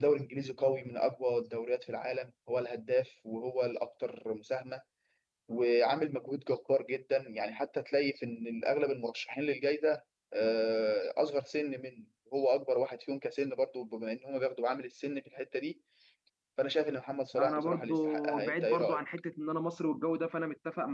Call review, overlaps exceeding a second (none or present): present